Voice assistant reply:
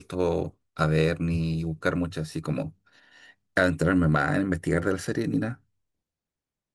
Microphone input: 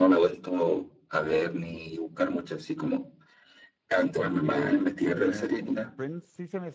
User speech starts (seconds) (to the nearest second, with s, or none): 4 s